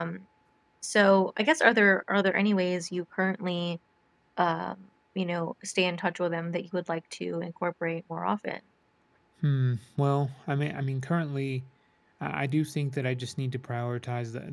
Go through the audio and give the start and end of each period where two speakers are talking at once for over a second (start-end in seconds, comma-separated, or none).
none